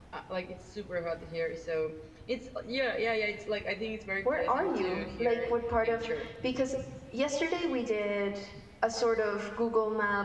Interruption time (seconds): 4.2 s

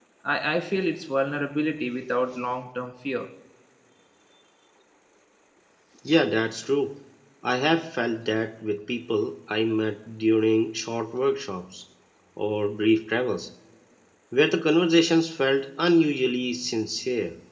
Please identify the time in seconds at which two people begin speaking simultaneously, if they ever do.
none

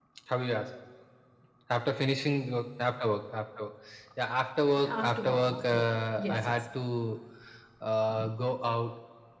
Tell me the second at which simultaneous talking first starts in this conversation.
4.8 s

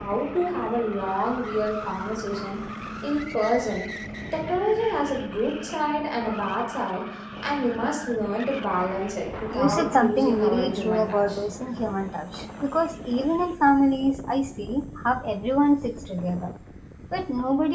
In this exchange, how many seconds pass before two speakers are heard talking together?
9.5 s

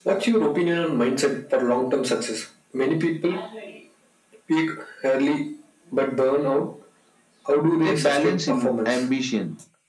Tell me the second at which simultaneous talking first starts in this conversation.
7.8 s

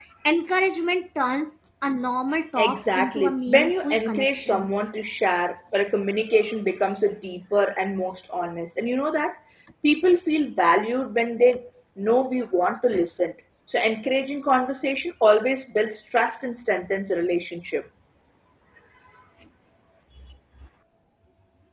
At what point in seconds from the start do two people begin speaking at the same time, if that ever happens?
2.6 s

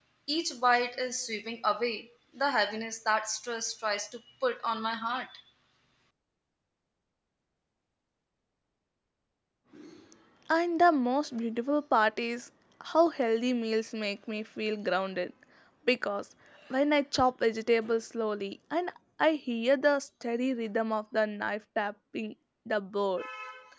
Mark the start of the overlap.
none

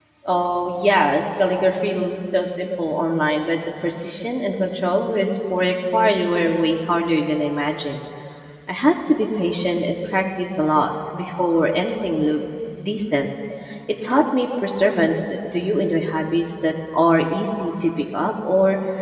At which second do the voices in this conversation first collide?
none

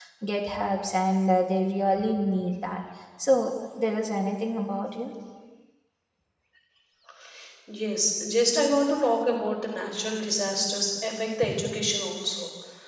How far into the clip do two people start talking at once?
none

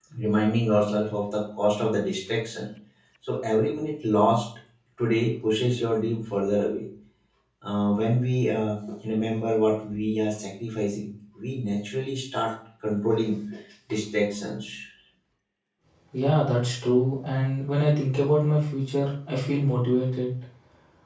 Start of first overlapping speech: none

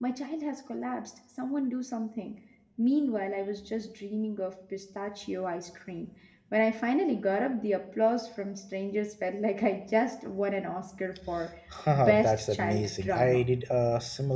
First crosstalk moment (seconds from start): 12.0 s

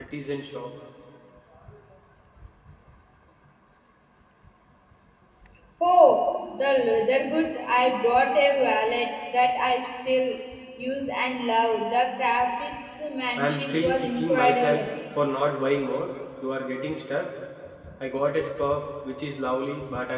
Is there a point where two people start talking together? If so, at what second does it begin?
13.4 s

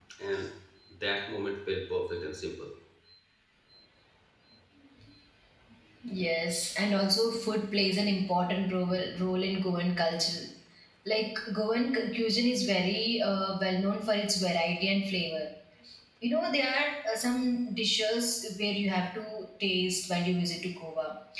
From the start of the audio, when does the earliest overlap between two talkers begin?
none

